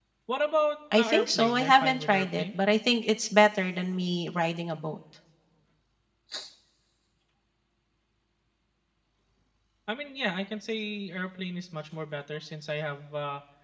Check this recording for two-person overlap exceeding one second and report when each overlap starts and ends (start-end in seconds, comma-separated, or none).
1.0-2.6